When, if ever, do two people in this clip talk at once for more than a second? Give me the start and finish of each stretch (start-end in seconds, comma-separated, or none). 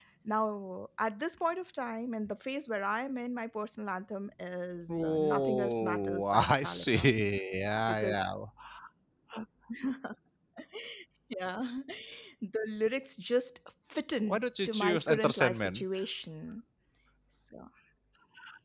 4.9-7.1, 14.2-15.8